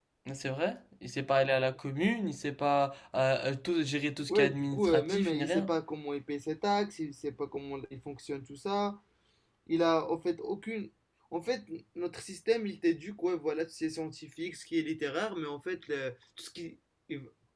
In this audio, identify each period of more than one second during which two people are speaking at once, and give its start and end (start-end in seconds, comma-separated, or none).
4.3-5.7